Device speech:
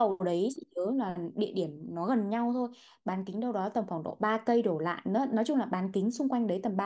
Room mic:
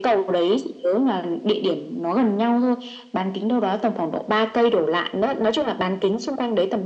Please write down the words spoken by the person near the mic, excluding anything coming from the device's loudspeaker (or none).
none